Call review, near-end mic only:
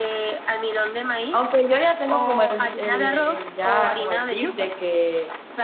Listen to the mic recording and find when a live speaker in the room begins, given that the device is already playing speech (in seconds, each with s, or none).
1.3 s